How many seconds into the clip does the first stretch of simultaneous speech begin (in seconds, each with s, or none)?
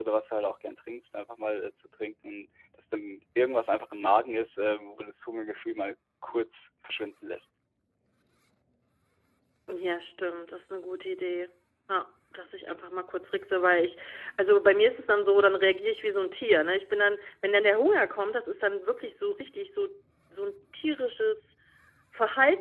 none